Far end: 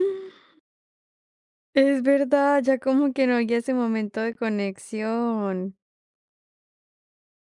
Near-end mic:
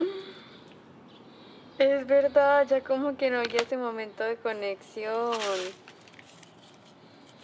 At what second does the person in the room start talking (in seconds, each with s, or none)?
none